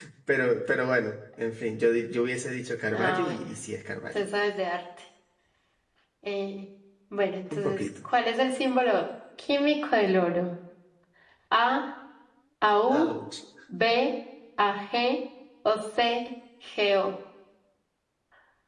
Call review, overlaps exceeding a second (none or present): none